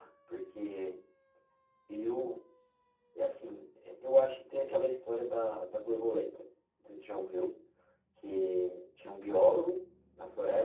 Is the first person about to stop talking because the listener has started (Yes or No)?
No